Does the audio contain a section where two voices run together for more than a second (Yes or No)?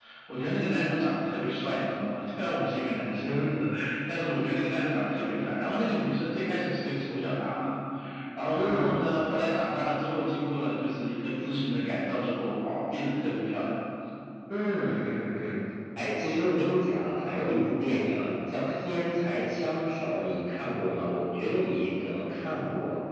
No